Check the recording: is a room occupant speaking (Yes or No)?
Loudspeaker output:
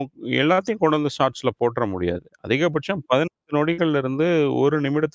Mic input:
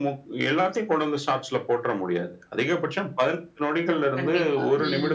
Yes